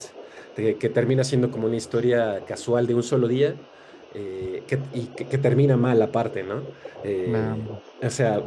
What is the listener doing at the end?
listening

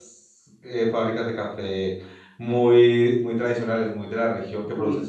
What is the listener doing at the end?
listening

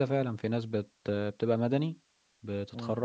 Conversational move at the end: taking over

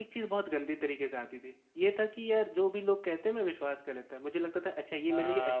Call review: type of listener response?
taking over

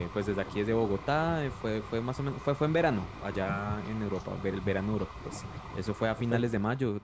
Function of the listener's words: listening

